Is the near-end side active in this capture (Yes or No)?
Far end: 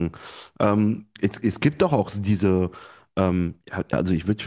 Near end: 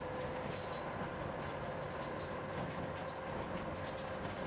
No